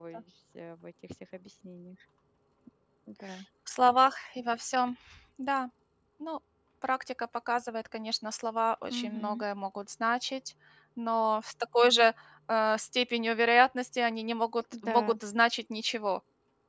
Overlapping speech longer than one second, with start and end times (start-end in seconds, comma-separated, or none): none